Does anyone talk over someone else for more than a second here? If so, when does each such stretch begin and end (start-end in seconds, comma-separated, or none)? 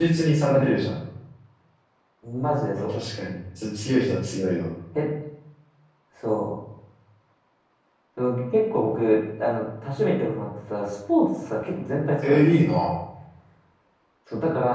none